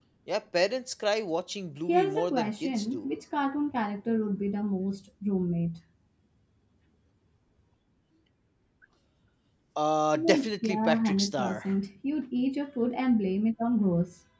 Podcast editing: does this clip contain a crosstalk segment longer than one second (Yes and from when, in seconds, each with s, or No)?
Yes, from 1.9 s